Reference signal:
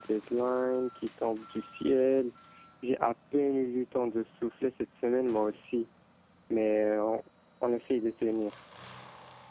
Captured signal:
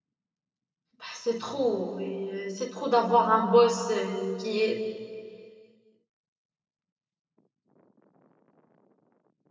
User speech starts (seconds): 1.0 s

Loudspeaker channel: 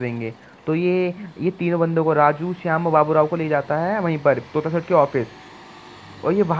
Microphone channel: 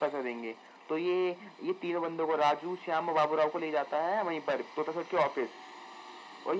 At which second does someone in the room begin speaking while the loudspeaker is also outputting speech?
none

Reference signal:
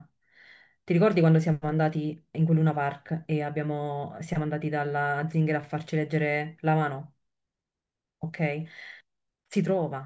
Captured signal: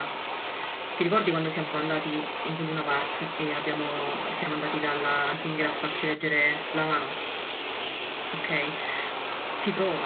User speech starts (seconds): none

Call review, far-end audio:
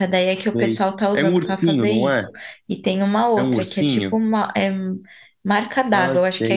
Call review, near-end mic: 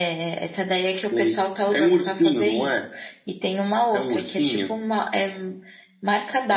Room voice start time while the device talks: none

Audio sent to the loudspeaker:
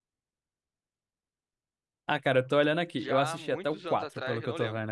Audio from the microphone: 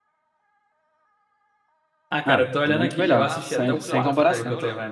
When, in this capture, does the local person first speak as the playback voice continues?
2.2 s

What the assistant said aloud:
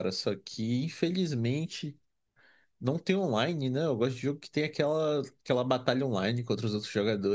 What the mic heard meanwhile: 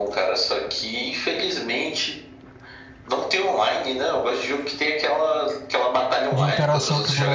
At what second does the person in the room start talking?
6.3 s

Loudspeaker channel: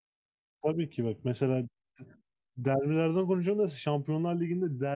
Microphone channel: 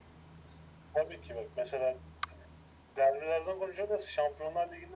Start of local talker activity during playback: none

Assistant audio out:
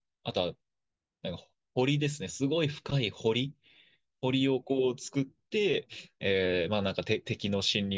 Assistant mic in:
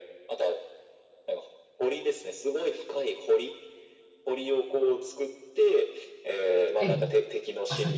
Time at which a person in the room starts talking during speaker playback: 6.8 s

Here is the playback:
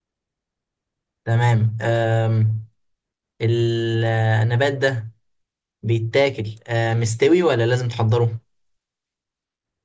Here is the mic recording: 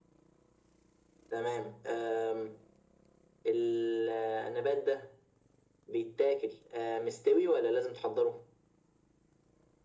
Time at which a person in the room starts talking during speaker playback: none

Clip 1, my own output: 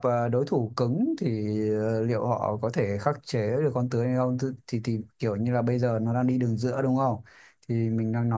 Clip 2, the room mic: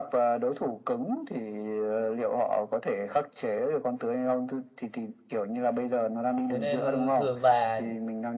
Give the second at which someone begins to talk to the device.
6.5 s

